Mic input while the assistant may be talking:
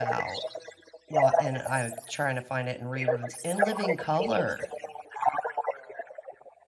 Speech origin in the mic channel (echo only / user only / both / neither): both